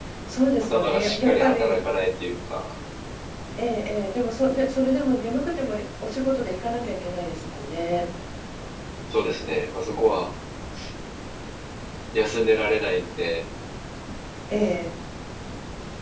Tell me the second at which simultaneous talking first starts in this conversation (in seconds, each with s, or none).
0.6 s